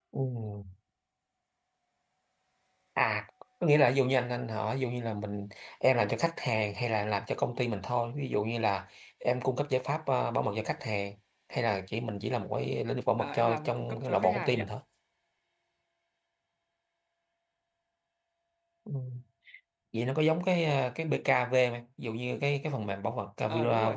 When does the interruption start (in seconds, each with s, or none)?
13.2 s